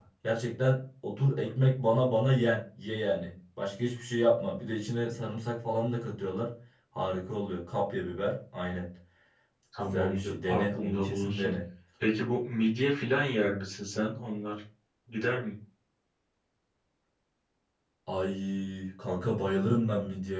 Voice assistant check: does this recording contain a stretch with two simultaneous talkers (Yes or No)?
Yes